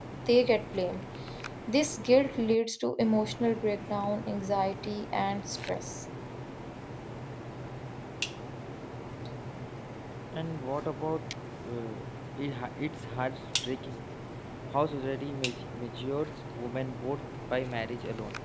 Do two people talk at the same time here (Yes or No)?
No